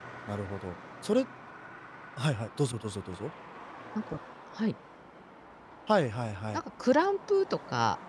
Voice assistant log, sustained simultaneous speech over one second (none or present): none